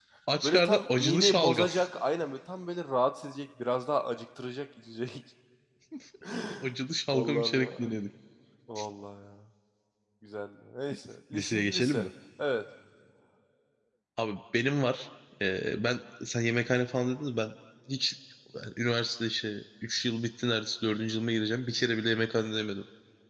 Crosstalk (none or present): present